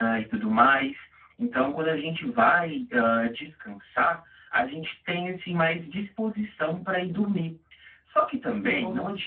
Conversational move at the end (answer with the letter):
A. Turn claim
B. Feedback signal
B